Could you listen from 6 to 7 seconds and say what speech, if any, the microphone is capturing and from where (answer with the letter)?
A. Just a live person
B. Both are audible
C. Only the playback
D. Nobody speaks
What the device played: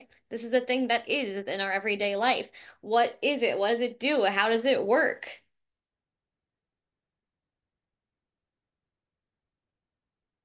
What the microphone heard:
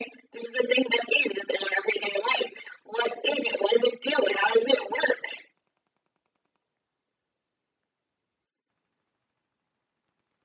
D